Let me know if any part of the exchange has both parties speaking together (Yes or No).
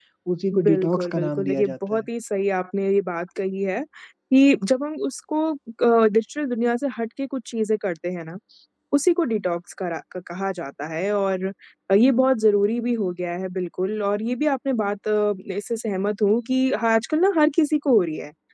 Yes